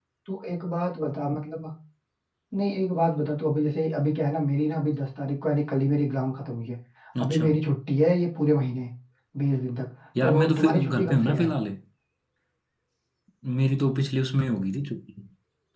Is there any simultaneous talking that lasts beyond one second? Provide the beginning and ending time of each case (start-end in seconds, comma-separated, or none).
10.2-11.5